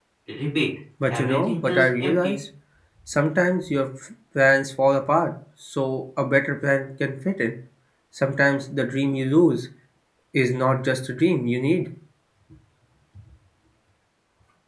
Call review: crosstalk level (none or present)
present